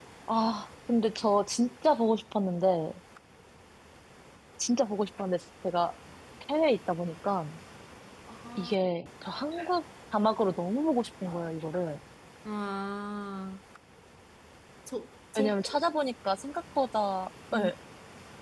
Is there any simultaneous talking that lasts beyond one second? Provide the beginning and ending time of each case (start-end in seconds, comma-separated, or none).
none